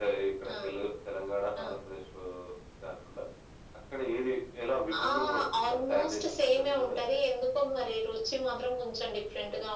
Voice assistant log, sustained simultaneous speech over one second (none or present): present